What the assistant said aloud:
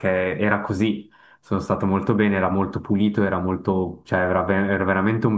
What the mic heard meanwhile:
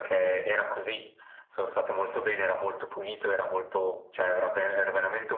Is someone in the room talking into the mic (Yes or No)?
No